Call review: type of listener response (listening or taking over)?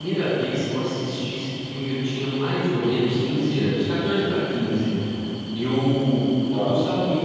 listening